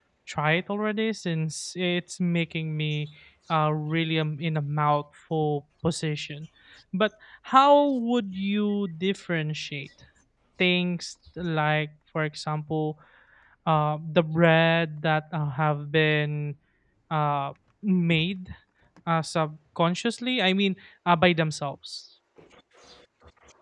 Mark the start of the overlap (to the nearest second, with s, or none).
none